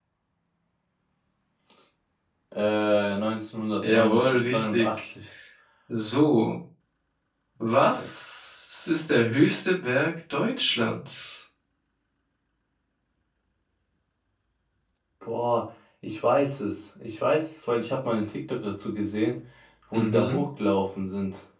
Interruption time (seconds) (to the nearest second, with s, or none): 4 s